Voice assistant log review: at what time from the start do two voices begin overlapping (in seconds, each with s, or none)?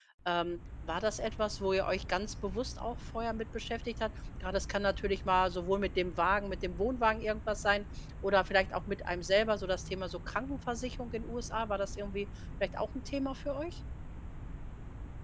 none